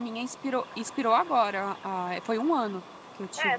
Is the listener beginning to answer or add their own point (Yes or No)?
Yes